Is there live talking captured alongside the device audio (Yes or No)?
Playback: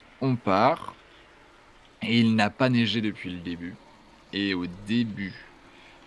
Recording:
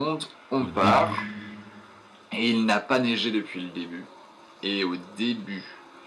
Yes